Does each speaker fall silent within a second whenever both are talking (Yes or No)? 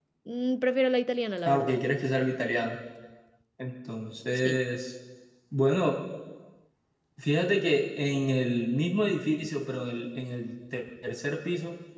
Yes